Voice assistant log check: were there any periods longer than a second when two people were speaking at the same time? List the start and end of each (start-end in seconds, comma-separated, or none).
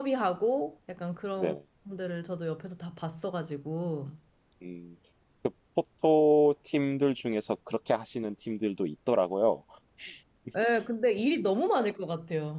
none